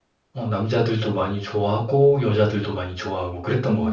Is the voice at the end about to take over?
Yes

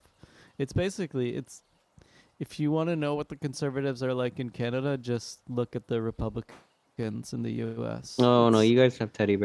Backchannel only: No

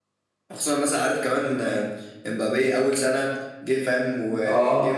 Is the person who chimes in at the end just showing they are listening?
Yes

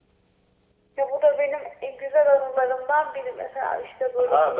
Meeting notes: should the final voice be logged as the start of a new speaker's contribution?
Yes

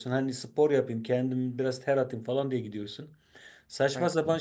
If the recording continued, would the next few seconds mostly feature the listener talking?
No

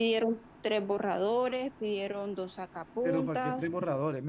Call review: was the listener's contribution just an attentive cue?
No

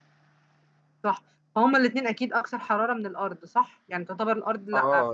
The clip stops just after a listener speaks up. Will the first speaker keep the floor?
No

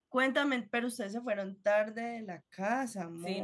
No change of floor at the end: No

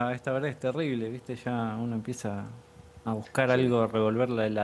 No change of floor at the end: Yes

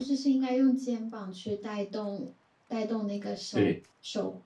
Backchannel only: Yes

